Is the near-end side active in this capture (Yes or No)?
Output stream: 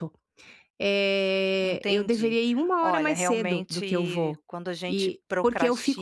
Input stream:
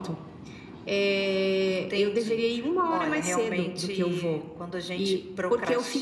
No